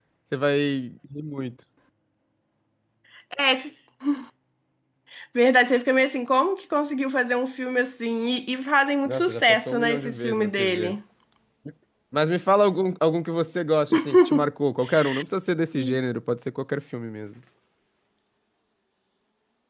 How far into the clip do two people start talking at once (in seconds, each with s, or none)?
9.0 s